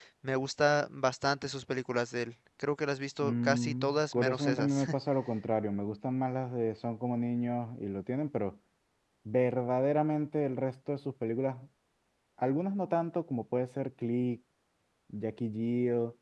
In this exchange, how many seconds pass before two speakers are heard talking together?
3.2 s

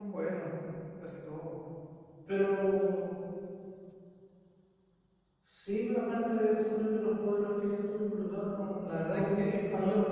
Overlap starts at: 8.5 s

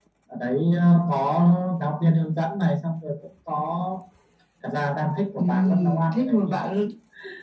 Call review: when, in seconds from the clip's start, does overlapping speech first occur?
5.4 s

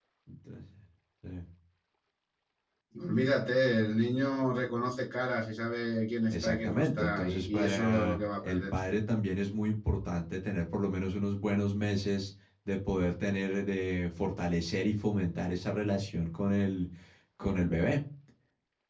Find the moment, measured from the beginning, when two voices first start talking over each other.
6.3 s

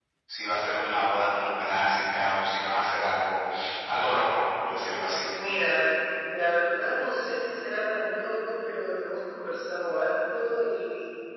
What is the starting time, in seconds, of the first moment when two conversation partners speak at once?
none

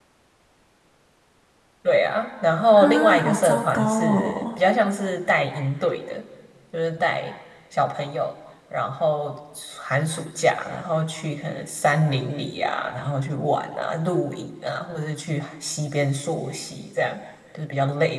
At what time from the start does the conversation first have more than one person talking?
2.8 s

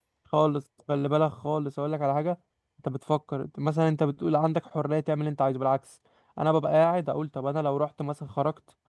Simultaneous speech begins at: none

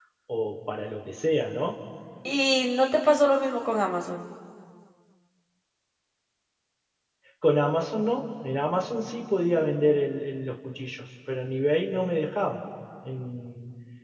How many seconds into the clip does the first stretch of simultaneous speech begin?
none

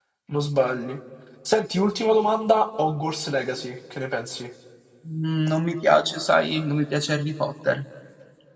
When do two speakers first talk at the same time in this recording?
none

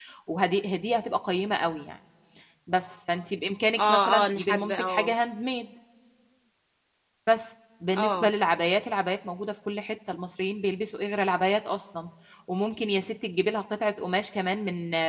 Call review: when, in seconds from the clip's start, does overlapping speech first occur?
3.8 s

